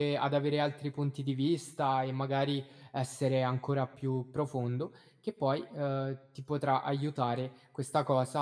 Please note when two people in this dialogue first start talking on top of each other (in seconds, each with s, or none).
none